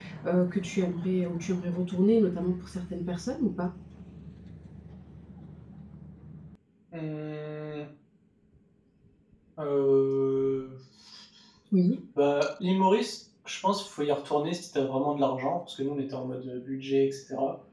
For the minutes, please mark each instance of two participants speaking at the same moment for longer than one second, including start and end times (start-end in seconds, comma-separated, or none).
none